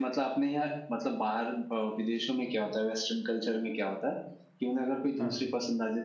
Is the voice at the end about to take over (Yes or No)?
No